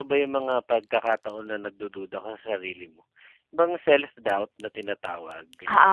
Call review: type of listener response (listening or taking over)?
taking over